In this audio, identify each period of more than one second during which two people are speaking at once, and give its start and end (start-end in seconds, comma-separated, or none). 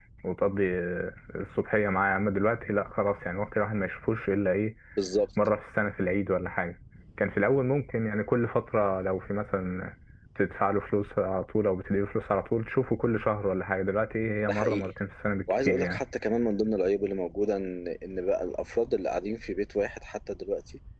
none